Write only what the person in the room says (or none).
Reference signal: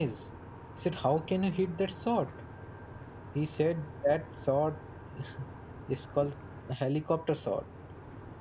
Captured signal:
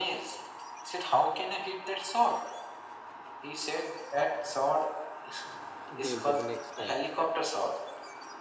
Again for the next time.